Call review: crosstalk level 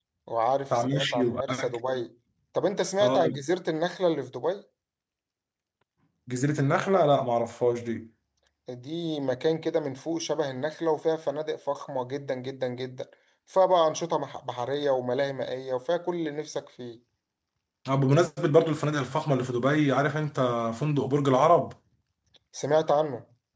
present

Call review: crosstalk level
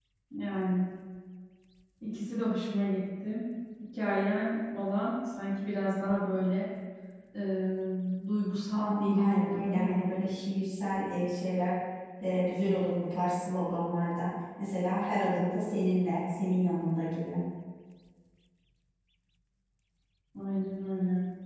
present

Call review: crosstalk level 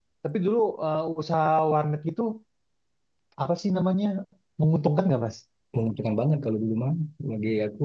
none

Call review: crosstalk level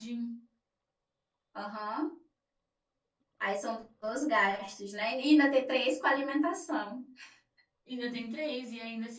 none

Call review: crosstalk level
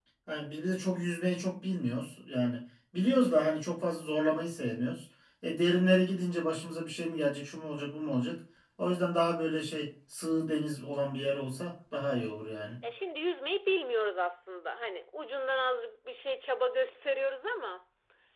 none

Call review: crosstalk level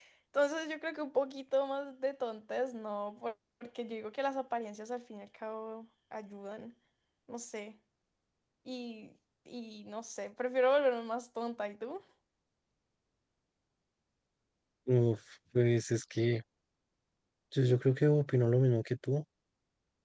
none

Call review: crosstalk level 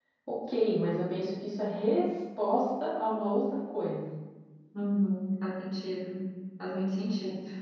none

